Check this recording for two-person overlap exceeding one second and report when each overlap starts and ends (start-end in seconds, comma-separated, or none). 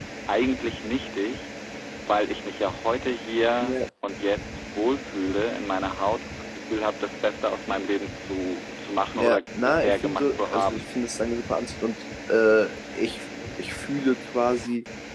9.2-10.8